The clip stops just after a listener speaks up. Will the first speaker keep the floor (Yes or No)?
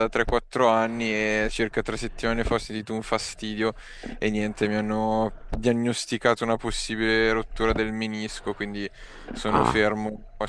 Yes